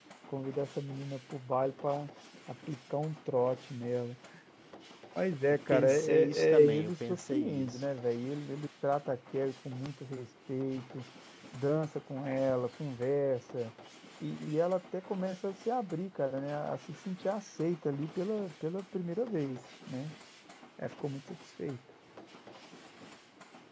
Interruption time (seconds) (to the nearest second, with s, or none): 6 s